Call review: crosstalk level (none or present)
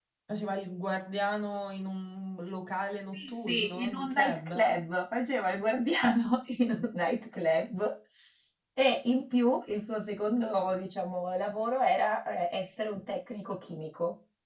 present